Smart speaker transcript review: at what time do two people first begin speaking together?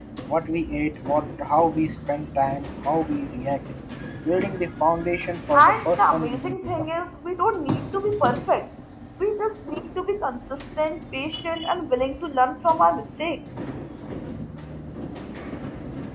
5.5 s

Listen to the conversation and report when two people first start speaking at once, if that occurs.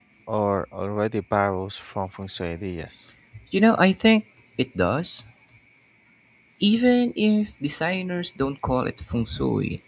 none

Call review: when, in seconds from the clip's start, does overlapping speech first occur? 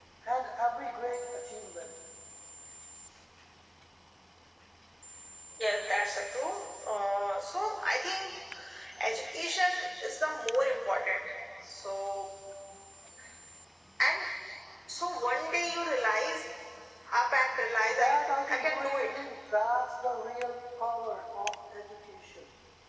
17.9 s

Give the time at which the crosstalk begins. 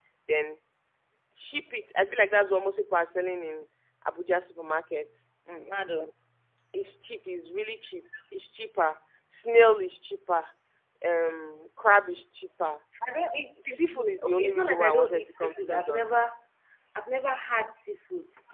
13.7 s

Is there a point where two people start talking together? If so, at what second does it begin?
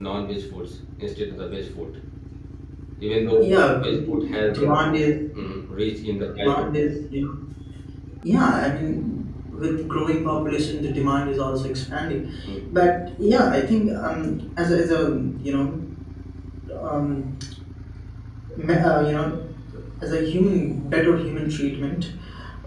3.4 s

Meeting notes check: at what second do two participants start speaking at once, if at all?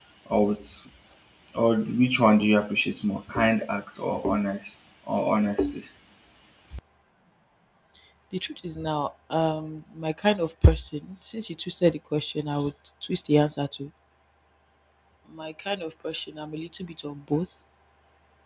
none

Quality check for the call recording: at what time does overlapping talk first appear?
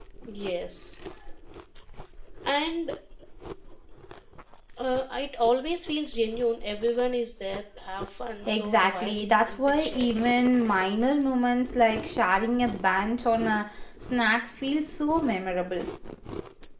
8.5 s

